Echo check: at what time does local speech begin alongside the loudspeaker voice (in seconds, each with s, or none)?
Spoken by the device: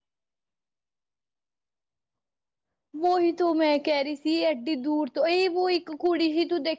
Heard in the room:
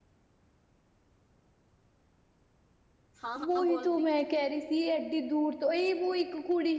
3.2 s